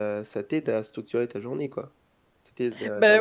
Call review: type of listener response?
taking over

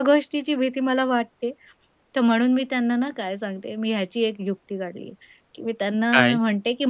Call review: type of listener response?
listening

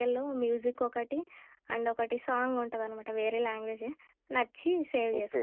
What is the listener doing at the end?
taking over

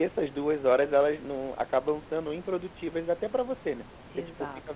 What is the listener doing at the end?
listening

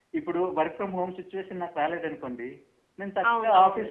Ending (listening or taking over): listening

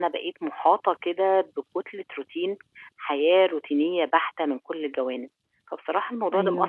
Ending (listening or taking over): listening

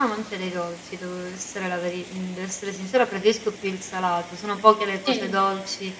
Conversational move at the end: listening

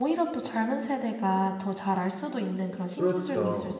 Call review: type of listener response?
taking over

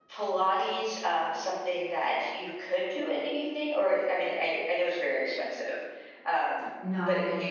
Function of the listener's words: taking over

